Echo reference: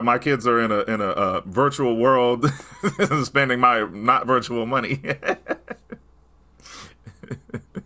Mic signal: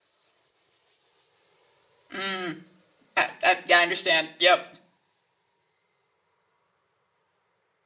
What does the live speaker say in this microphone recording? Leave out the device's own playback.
Mm. I, I, yeah, I understand. Yep.

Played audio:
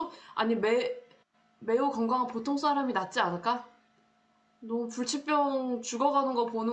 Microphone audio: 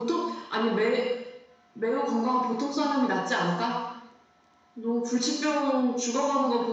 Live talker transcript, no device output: none

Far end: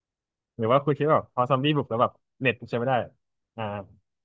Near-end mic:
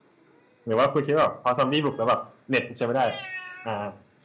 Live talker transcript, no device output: none

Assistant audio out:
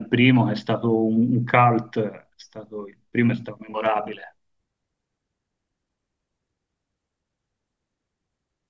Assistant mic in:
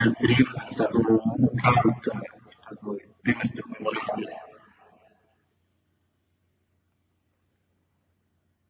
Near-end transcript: none

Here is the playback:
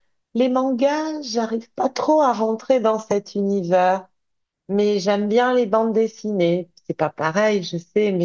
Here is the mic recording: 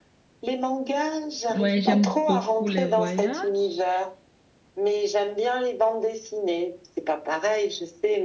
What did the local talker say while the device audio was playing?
Ouais, j'aime beaucoup les voyages.

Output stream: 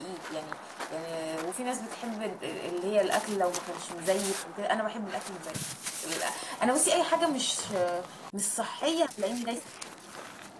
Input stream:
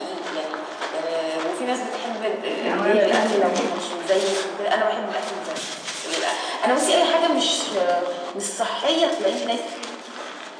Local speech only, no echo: لا ما جربتش حاجه قبل كده

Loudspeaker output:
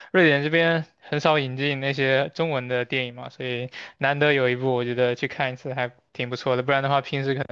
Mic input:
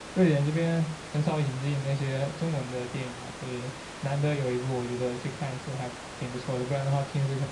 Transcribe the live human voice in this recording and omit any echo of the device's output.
none

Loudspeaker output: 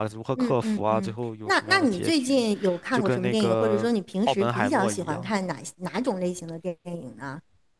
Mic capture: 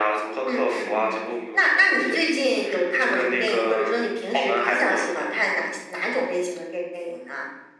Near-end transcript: none

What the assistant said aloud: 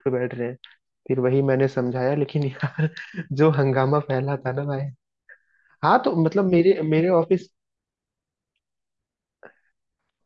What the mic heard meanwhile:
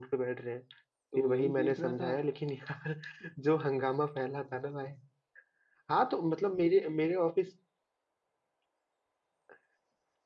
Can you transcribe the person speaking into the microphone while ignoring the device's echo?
तो यही देख रहा था

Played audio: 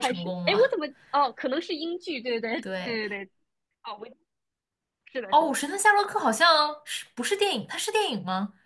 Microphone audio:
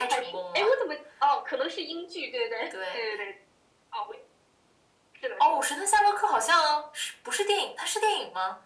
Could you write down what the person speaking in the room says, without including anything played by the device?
none

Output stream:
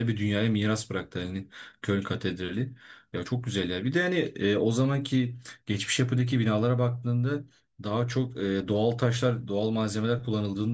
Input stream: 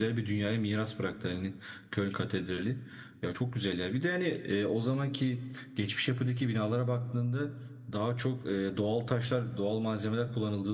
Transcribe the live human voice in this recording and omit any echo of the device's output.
none

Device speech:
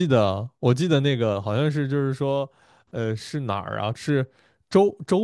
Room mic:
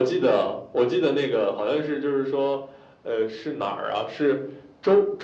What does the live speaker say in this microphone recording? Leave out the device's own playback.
none

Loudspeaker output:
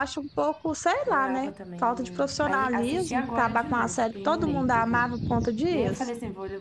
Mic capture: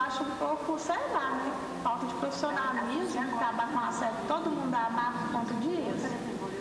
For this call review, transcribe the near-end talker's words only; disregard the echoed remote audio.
none

